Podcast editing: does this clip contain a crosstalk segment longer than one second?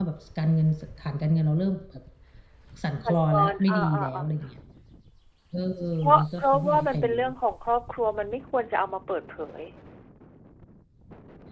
Yes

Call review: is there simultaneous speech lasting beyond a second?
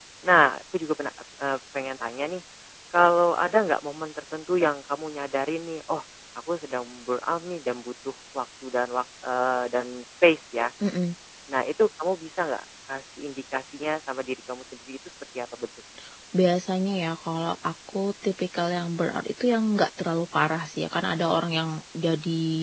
No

